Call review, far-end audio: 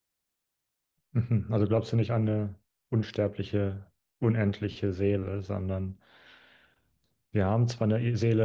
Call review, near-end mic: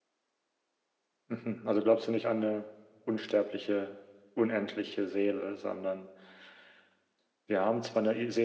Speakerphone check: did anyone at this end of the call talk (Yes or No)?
No